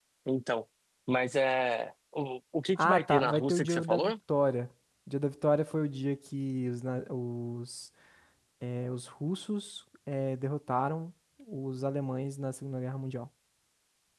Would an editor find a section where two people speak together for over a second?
Yes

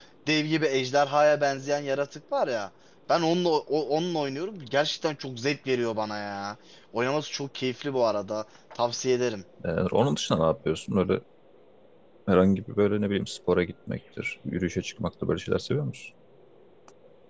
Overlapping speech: No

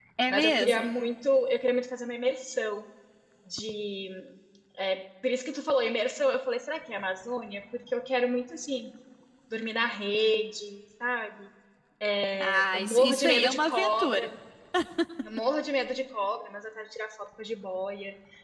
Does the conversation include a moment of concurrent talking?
Yes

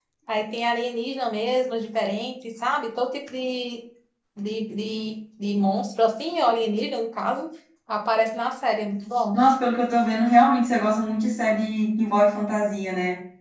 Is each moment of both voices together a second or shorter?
Yes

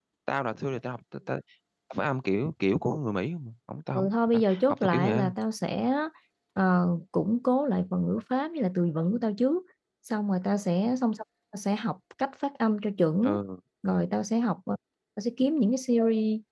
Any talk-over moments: Yes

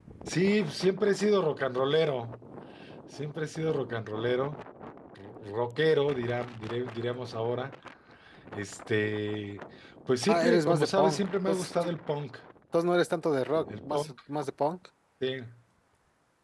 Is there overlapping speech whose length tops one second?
Yes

